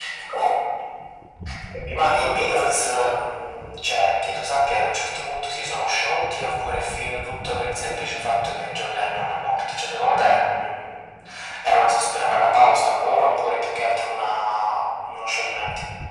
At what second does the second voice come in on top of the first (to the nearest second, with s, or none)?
2 s